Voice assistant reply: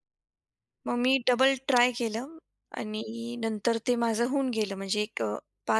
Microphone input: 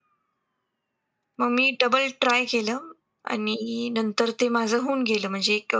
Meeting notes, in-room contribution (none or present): none